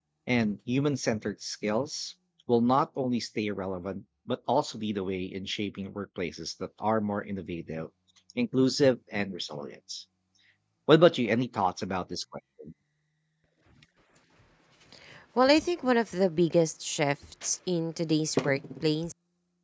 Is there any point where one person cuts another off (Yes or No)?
No